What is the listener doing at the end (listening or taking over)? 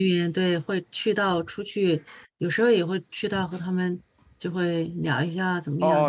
taking over